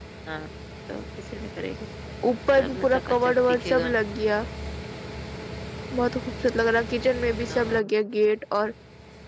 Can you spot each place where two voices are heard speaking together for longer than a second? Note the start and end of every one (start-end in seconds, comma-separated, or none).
2.6-3.9